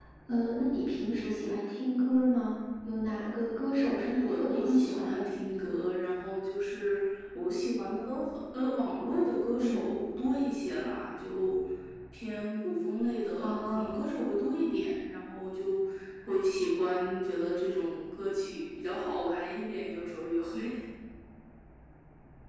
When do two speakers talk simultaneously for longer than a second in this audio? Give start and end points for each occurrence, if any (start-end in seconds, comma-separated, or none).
4.0-5.3